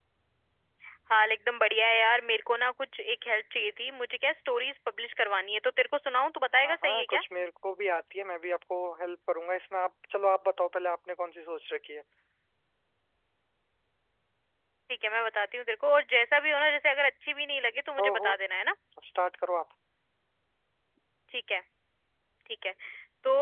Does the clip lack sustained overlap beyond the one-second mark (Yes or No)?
Yes